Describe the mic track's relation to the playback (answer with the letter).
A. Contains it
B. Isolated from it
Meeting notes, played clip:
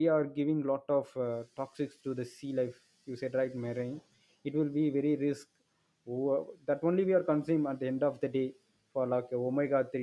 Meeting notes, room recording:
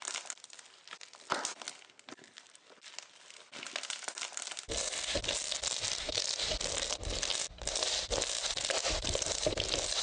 B